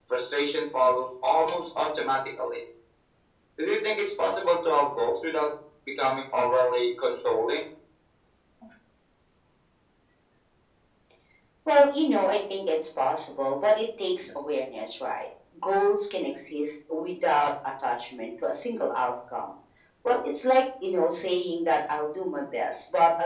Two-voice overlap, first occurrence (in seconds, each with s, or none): none